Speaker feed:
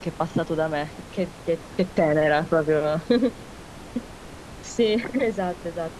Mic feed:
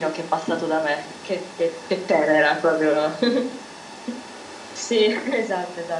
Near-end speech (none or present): none